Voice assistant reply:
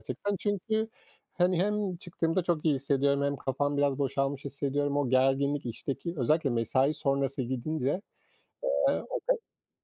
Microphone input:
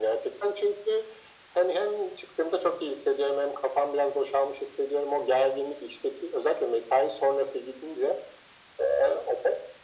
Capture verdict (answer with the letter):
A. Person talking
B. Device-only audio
B